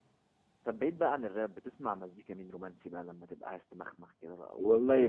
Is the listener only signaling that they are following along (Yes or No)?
No